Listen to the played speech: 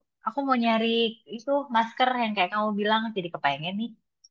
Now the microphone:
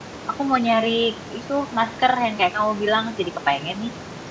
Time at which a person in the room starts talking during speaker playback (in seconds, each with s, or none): none